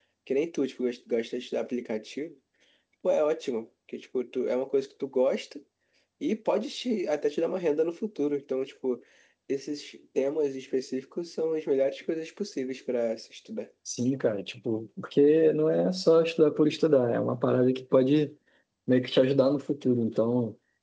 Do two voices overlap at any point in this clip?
No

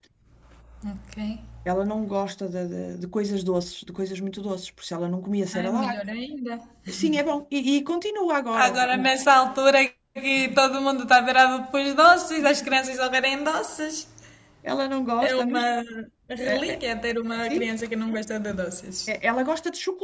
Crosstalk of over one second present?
No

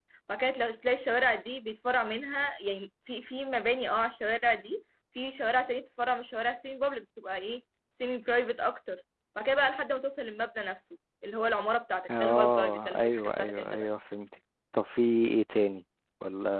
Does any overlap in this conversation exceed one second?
Yes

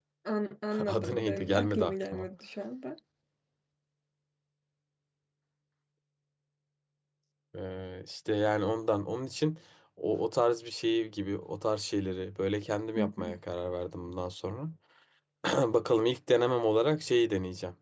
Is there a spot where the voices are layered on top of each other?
Yes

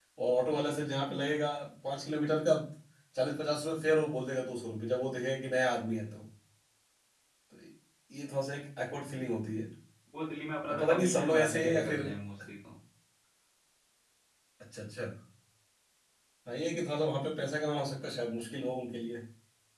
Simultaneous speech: Yes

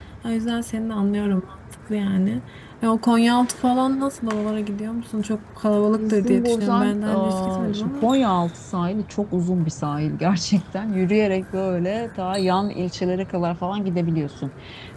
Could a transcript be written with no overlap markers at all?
No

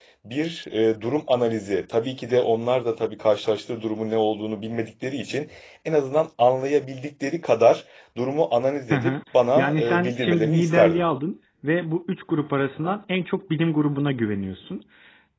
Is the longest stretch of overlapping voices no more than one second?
No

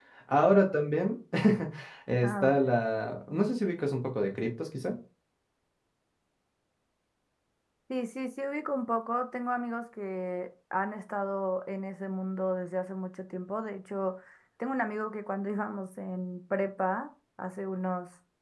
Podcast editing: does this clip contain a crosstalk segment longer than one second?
No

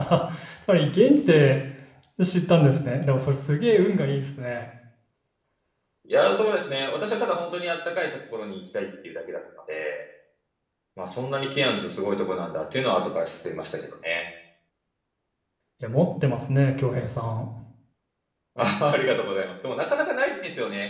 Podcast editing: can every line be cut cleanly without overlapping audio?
Yes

